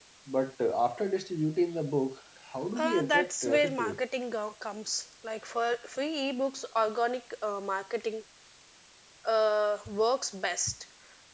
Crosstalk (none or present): present